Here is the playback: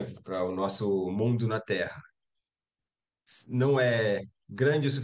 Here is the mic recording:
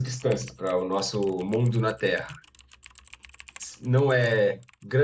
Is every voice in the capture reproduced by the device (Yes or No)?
Yes